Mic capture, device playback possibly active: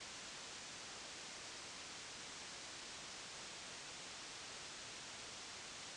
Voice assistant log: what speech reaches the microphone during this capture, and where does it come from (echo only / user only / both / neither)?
neither